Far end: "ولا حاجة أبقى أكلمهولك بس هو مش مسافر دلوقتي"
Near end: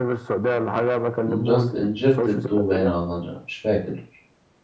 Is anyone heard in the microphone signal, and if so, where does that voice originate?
both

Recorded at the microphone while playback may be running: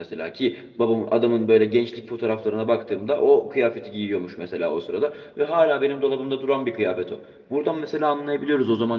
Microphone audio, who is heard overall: user only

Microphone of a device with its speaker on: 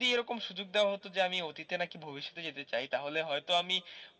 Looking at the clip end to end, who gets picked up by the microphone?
echo only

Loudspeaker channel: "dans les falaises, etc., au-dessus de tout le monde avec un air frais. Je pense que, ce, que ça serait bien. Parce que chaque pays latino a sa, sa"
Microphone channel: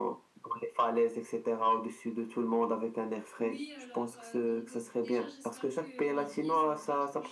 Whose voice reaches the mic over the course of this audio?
both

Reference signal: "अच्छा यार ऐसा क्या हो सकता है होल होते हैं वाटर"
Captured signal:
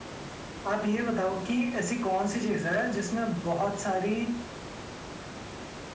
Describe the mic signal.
user only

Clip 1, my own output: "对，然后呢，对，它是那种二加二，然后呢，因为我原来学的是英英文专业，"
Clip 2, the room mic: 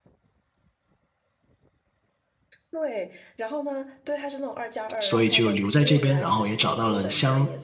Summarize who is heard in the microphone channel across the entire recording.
both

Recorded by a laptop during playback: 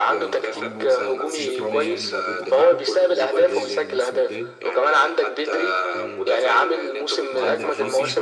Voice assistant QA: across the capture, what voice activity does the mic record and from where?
both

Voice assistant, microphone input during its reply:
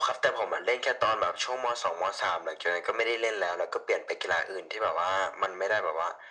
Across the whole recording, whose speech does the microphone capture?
echo only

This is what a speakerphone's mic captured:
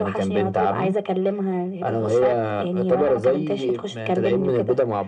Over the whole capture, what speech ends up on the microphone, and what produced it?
echo only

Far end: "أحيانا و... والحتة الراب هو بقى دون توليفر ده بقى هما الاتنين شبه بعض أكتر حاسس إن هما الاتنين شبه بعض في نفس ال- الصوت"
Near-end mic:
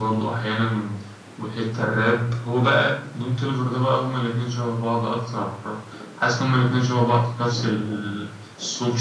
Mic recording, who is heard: echo only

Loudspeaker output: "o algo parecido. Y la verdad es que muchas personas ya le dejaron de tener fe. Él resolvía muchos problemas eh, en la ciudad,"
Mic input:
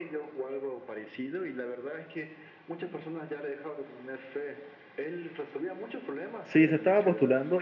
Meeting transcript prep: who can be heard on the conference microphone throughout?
both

